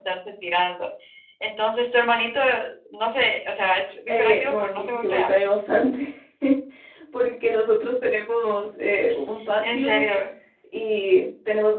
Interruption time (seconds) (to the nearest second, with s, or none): 4 s